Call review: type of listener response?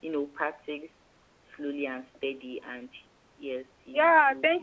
taking over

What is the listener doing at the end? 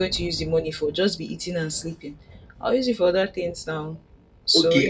taking over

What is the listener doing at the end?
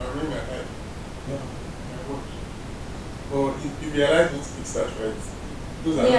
taking over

